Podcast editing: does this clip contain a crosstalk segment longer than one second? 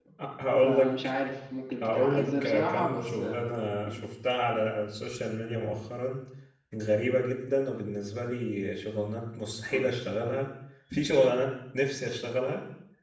Yes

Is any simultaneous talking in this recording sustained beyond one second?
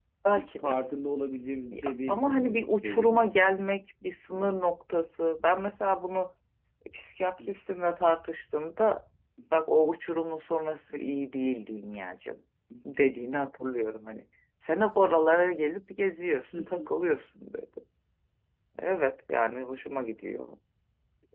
Yes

